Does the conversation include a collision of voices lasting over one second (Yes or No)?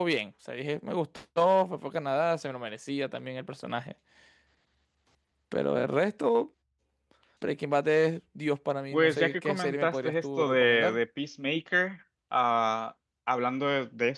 Yes